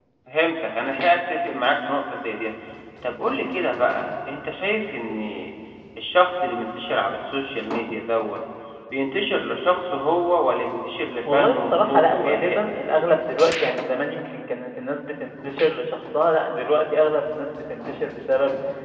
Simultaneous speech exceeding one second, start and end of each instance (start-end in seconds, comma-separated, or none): 11.3-12.7